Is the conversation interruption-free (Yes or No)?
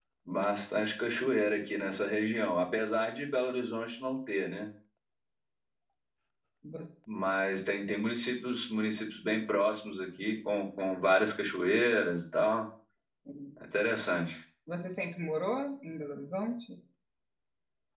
Yes